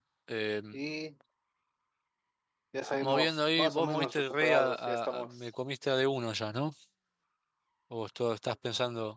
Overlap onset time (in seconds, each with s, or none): 3.0 s